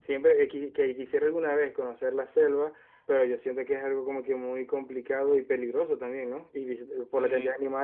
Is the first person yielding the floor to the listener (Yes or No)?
No